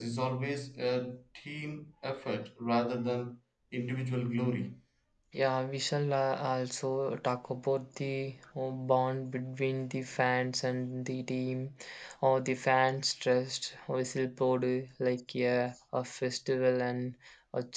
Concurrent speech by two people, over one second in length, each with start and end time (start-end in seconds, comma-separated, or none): none